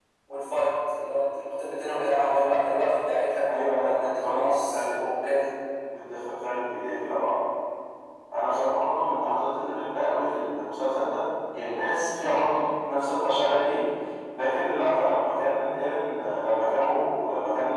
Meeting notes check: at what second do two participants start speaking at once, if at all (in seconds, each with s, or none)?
3.8 s